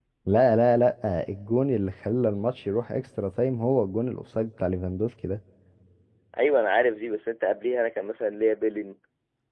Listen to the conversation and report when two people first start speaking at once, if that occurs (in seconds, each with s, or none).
none